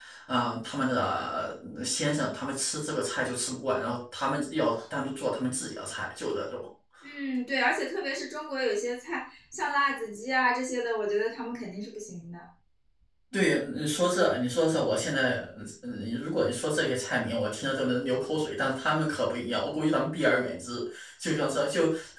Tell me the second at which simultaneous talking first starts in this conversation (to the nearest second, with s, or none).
none